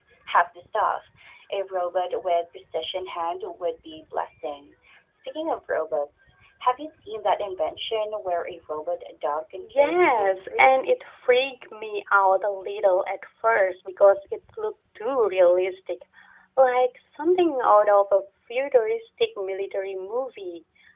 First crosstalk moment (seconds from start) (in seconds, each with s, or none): 9.6 s